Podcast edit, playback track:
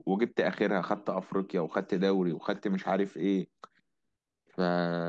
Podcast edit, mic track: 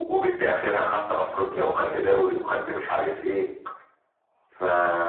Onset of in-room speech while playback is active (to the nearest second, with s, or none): 1 s